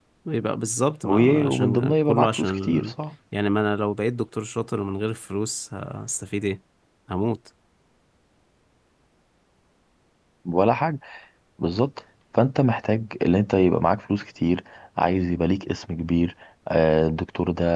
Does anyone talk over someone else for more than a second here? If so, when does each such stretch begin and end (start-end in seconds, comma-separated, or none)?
1.0-2.9